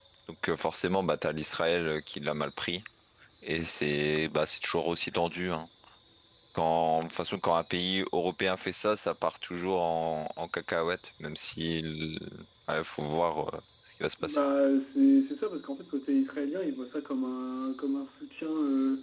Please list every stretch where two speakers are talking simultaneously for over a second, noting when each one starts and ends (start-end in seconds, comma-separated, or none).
none